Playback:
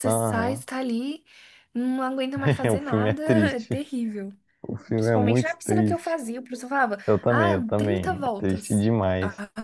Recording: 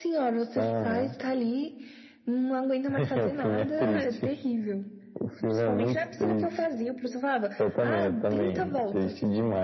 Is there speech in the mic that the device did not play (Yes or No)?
No